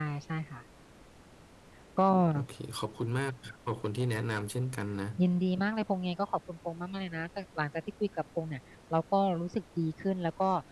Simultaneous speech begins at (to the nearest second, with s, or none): none